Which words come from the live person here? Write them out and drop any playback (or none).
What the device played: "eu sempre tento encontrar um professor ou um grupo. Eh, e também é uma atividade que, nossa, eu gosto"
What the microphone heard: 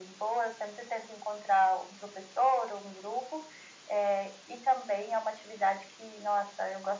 none